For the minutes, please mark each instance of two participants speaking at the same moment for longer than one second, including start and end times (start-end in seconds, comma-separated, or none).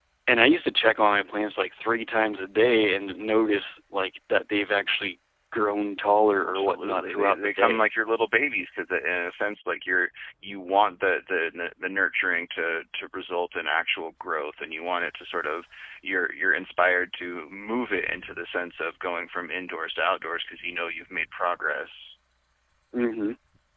6.4-7.8